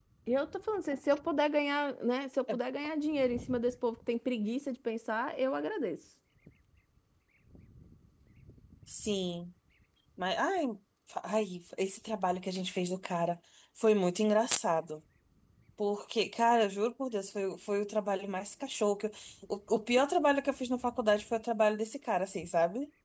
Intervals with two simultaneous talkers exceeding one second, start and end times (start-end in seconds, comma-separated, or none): none